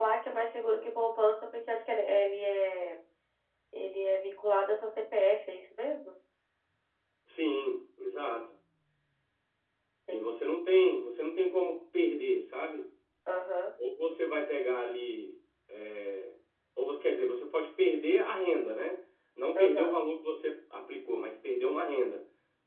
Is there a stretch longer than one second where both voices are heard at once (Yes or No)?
No